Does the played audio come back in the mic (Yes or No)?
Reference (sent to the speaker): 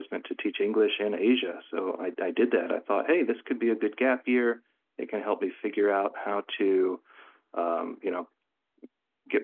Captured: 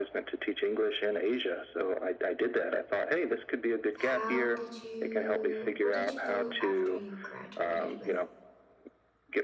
Yes